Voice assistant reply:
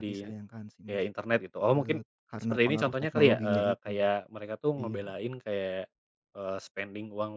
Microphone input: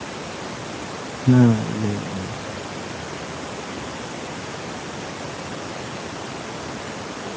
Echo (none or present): none